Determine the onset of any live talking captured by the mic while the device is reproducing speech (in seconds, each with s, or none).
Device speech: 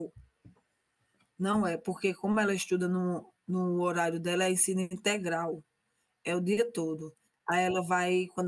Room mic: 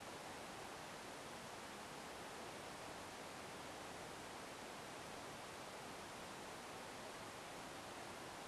none